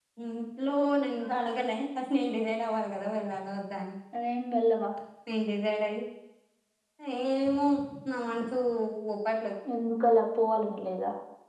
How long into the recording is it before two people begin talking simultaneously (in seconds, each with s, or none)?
none